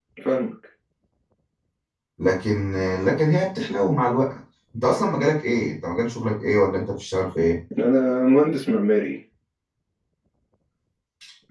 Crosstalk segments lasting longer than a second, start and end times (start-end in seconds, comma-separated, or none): none